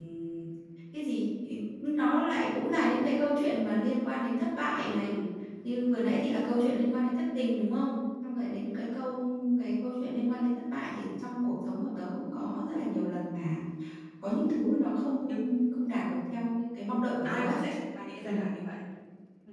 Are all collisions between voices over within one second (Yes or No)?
Yes